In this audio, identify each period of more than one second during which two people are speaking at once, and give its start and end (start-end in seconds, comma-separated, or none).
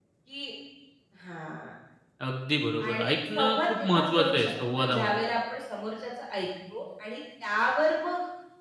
2.8-5.2